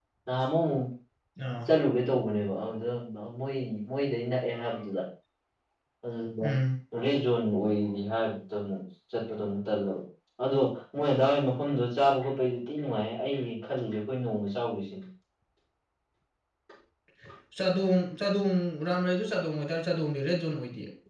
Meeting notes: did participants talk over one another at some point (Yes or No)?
No